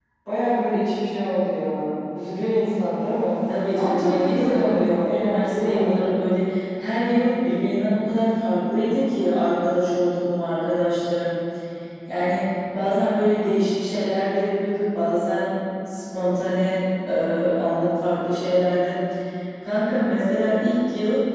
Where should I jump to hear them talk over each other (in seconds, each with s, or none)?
3.8 s